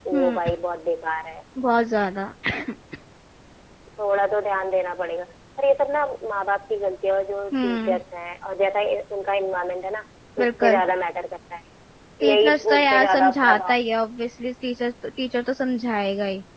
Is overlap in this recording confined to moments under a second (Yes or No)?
No